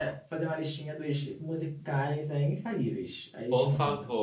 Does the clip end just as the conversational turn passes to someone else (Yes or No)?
Yes